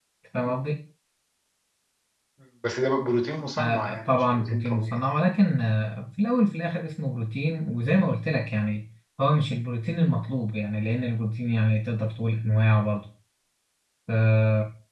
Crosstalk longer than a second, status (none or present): present